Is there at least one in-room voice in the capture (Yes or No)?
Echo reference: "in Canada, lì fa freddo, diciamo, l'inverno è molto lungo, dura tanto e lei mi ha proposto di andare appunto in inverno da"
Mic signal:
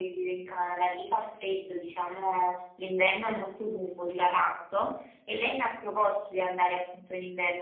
No